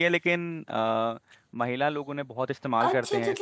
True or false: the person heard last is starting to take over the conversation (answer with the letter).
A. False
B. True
B